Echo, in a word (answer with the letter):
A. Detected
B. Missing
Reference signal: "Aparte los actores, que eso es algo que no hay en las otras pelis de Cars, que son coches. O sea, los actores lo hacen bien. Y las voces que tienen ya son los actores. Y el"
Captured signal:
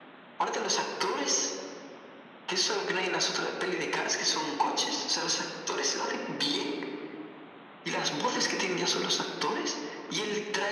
A